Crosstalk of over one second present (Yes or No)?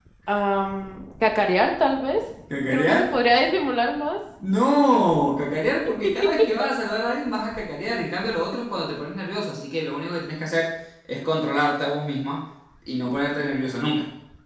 No